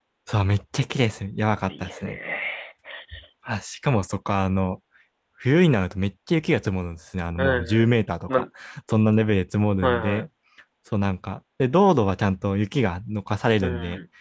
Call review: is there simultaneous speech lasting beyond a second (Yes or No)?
No